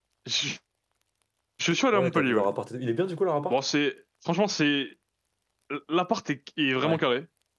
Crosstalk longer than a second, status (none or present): none